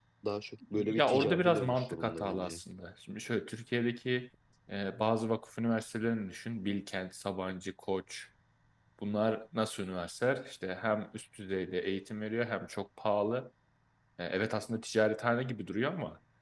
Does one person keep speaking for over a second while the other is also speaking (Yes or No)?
Yes